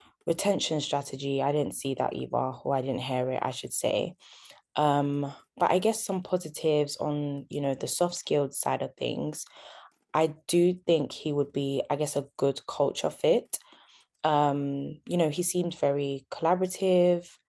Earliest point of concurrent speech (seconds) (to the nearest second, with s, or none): none